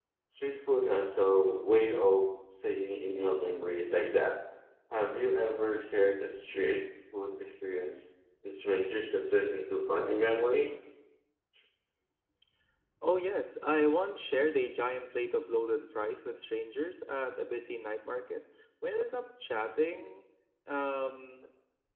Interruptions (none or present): none